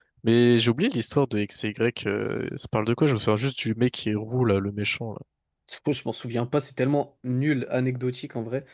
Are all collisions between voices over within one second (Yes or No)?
Yes